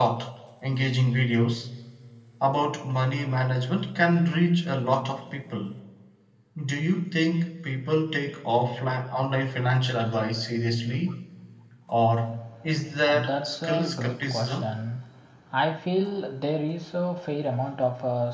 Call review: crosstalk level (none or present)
present